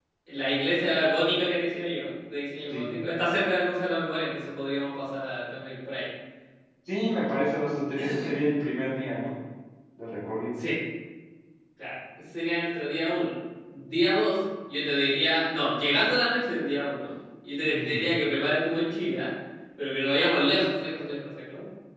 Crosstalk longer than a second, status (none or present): none